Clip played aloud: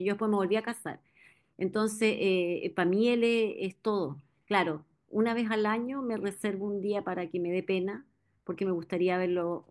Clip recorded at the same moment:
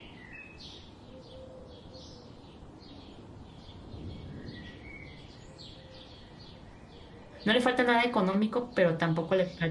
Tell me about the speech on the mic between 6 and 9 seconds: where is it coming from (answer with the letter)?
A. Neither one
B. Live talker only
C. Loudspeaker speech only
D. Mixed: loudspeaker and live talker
B